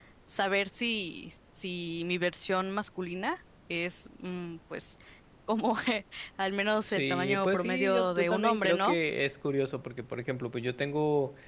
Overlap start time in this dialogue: 6.8 s

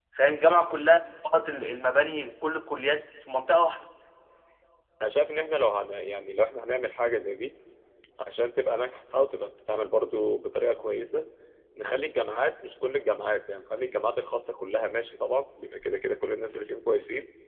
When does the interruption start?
none

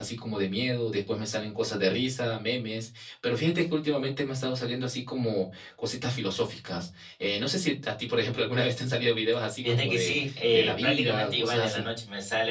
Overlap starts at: 9.6 s

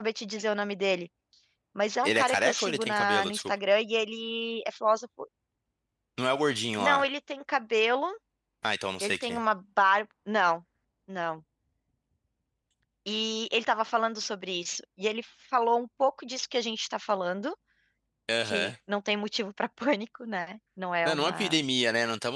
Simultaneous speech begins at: 2.0 s

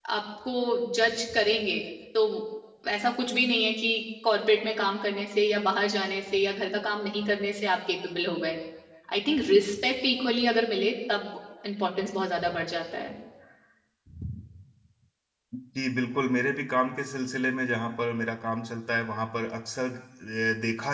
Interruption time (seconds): none

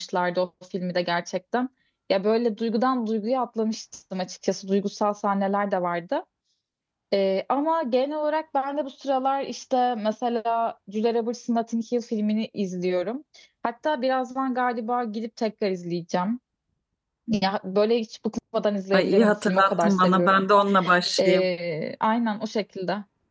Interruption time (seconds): 18.9 s

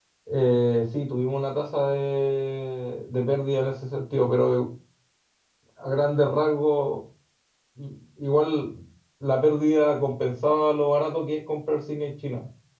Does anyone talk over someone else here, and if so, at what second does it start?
none

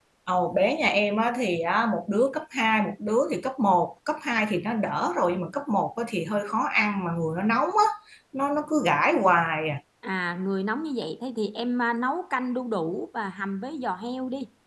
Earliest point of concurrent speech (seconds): none

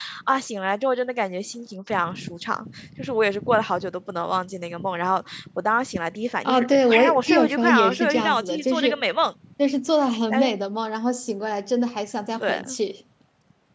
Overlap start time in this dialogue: 6.5 s

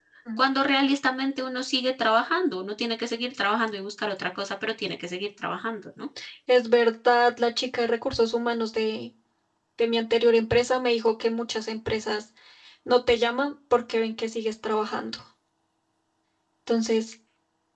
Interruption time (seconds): none

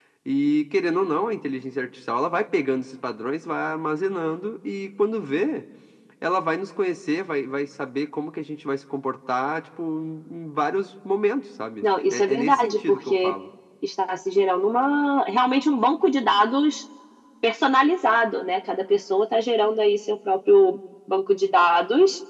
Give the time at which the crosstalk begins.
11.8 s

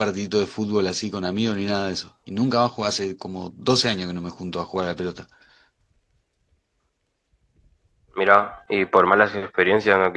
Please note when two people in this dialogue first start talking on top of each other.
none

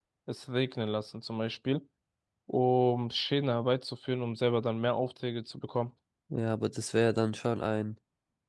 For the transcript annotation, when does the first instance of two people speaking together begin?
none

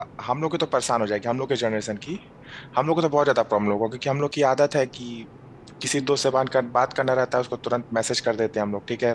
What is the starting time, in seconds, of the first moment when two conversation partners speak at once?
none

